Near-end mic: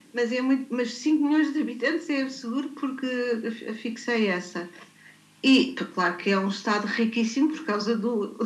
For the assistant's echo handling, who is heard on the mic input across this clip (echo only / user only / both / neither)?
echo only